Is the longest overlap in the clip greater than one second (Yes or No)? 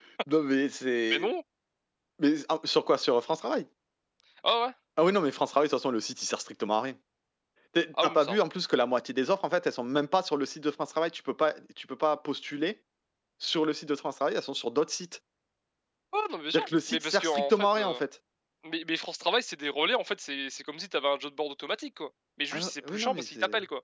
Yes